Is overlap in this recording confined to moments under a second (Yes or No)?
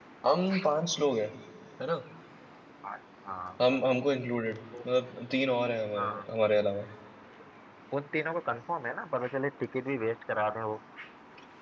Yes